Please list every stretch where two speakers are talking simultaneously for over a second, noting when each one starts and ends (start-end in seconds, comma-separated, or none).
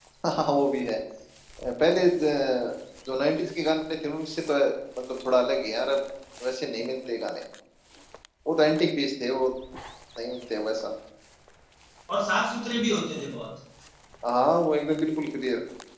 none